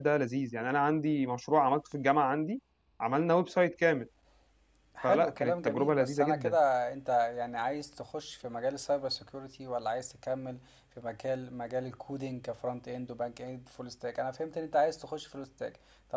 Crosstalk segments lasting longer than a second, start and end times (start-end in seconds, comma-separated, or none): 5.0-6.6